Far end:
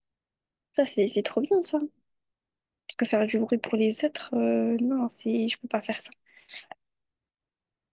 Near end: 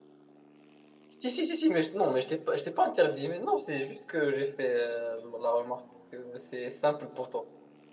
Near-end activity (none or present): present